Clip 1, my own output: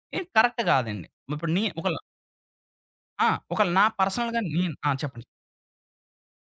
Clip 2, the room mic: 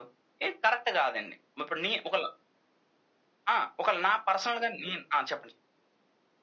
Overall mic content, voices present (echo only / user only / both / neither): echo only